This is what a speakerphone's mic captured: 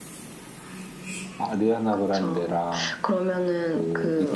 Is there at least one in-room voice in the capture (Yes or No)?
No